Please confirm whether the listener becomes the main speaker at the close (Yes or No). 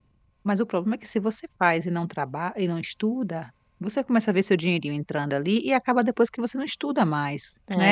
Yes